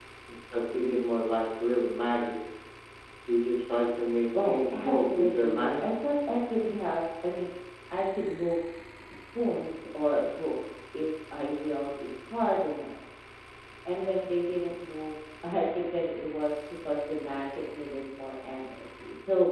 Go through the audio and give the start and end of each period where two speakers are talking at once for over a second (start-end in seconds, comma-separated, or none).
4.4-5.9